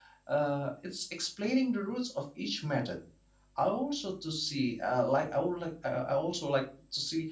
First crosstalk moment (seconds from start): none

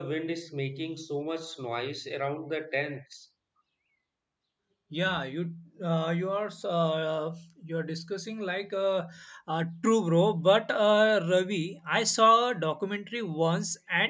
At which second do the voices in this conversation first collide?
none

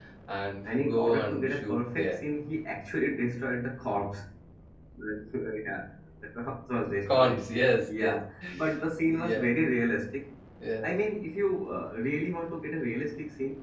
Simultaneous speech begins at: 1 s

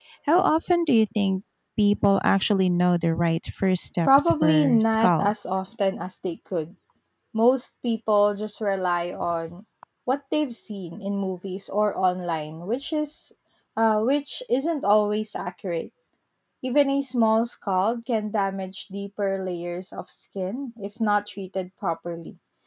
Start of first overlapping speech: 4 s

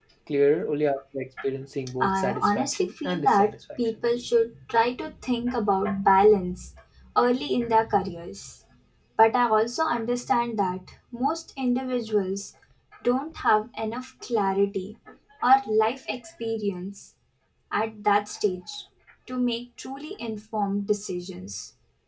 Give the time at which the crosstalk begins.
2 s

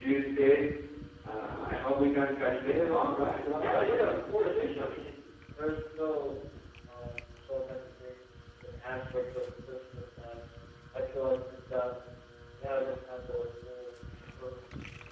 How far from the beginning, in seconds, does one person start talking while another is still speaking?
4 s

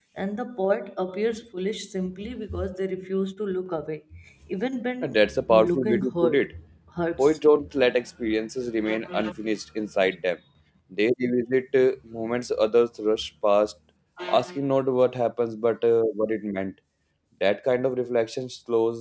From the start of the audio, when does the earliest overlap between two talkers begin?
5 s

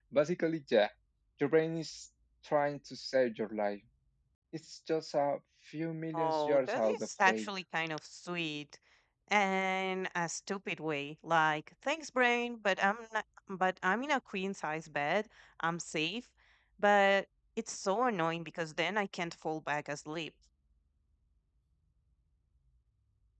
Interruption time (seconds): 6 s

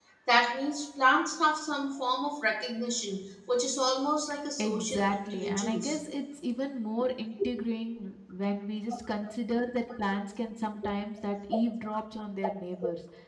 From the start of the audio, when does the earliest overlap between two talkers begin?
5 s

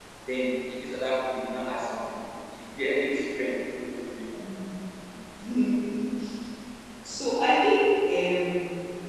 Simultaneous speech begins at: none

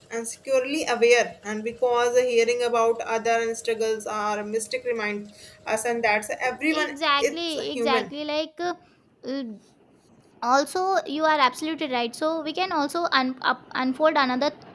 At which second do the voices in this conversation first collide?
7 s

